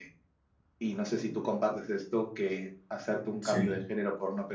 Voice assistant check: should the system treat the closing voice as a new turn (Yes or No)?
No